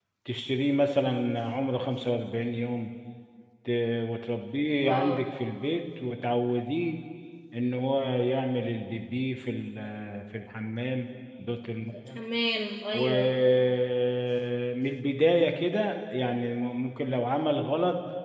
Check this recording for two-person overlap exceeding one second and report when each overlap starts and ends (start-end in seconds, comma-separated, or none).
none